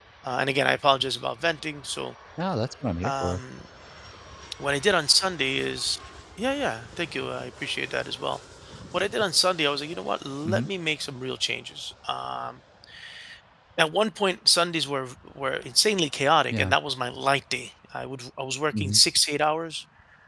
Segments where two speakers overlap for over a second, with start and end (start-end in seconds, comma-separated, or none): none